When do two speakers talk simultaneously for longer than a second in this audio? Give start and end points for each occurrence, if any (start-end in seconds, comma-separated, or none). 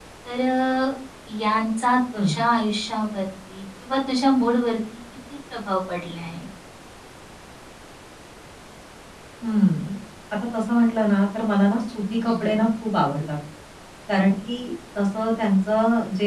none